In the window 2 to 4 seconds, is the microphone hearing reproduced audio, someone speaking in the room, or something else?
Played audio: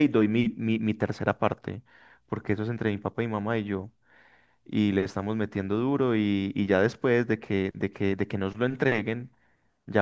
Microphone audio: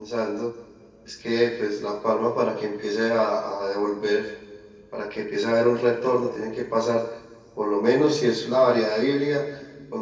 user only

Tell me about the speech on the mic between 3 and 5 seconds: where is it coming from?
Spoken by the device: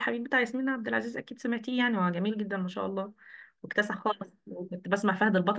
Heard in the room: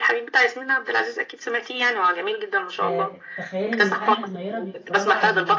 both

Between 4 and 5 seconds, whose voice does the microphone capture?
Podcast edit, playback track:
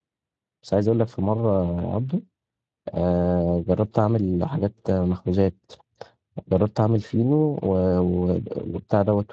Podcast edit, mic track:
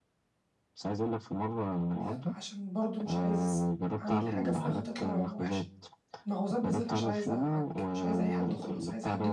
both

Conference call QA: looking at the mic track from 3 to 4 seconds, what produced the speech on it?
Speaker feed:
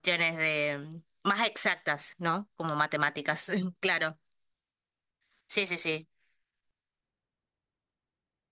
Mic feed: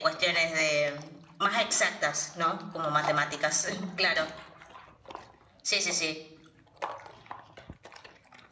echo only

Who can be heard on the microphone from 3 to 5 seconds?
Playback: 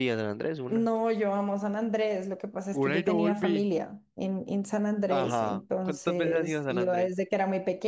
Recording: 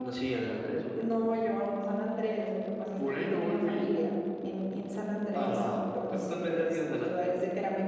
echo only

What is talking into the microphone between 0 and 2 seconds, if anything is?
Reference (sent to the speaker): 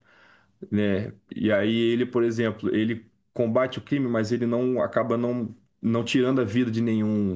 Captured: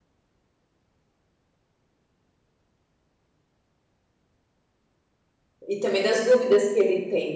neither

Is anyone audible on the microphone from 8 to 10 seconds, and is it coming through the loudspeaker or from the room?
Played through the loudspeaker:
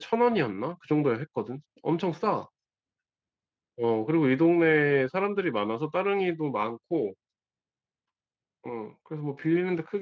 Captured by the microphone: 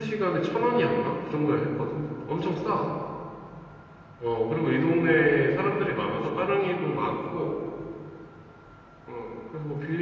echo only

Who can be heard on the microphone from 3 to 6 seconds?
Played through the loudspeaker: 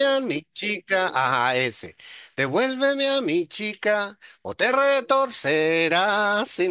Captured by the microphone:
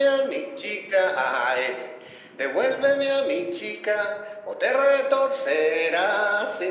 echo only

